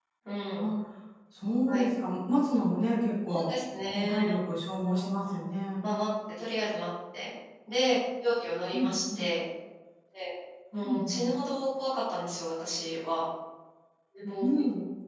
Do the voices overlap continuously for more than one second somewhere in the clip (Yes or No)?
No